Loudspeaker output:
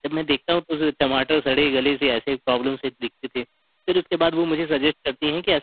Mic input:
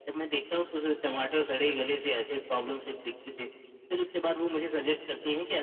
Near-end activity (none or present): none